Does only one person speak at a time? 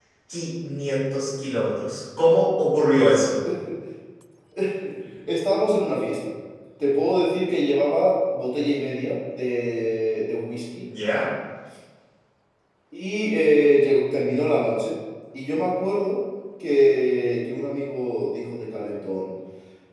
Yes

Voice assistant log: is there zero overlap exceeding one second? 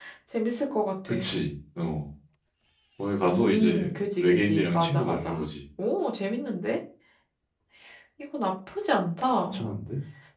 No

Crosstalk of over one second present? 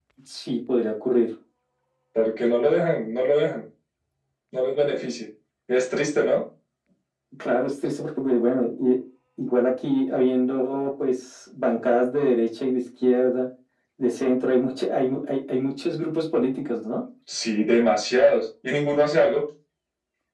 No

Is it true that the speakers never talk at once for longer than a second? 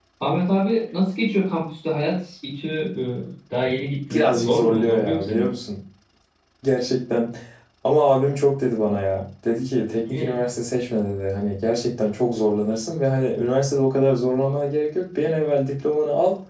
No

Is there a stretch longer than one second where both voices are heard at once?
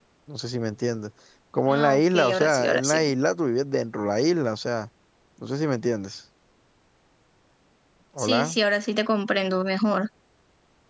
Yes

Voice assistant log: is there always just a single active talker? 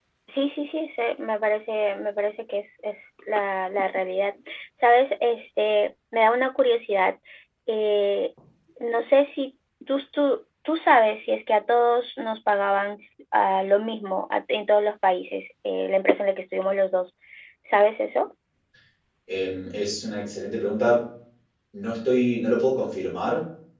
Yes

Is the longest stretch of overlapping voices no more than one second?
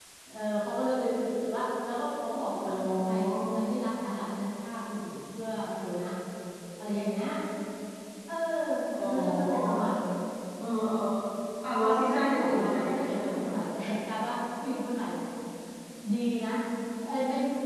No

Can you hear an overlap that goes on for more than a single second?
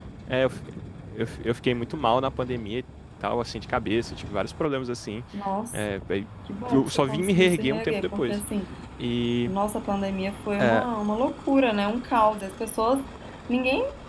Yes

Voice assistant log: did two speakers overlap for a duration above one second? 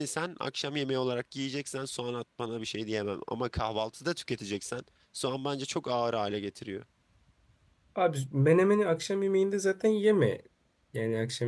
No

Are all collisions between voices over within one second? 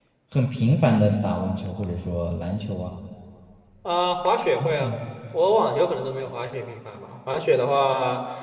Yes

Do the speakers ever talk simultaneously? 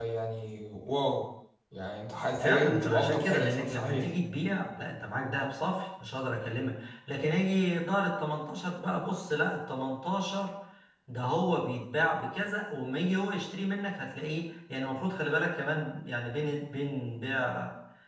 Yes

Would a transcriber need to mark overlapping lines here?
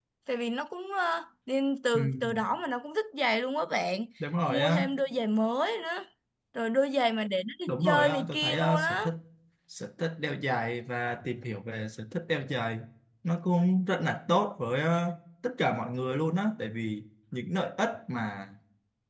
Yes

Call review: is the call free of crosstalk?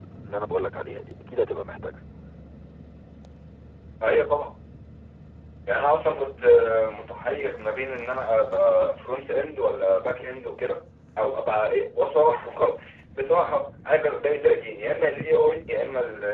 Yes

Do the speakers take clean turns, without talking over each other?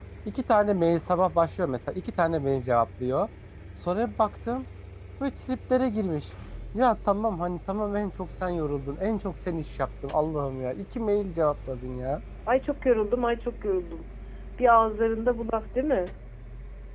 Yes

